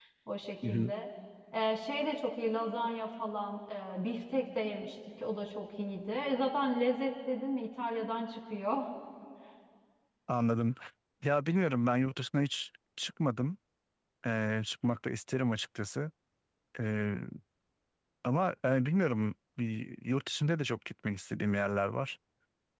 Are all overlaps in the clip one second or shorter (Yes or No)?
Yes